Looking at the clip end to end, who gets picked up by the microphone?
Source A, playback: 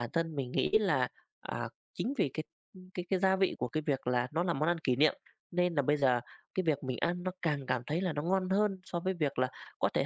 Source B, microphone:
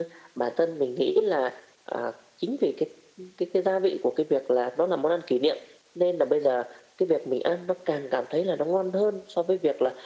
echo only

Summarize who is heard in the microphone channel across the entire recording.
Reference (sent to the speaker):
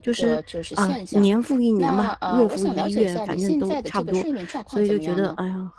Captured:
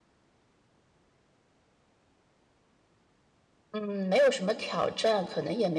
user only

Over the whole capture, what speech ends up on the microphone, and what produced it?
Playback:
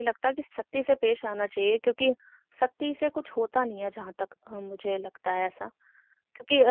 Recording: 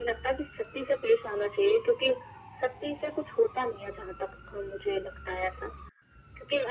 echo only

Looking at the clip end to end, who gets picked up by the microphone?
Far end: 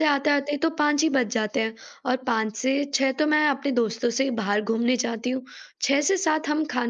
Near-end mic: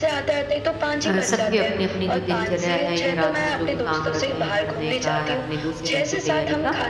both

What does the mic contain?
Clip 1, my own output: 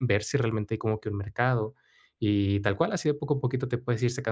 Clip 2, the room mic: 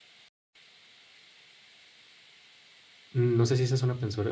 user only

